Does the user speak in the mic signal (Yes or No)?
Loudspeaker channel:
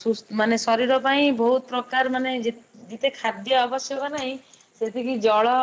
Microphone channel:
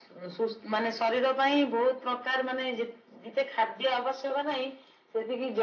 No